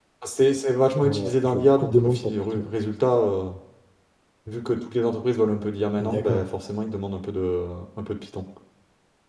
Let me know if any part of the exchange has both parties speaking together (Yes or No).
Yes